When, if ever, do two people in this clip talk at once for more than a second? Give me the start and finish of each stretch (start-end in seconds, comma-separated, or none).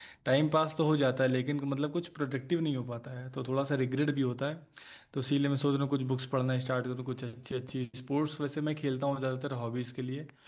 none